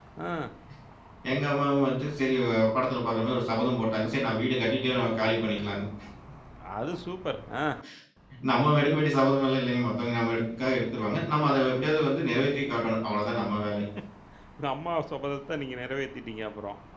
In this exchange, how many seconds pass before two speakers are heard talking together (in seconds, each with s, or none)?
none